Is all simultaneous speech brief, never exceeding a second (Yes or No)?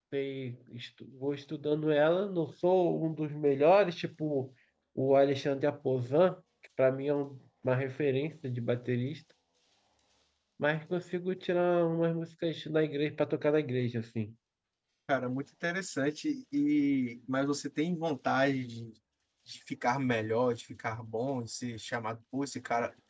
Yes